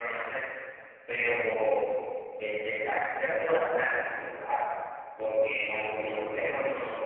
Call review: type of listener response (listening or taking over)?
listening